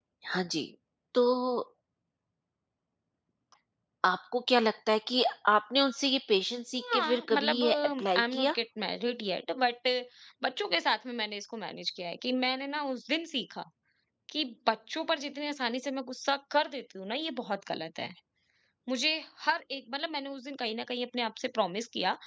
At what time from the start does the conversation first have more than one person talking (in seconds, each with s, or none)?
6.8 s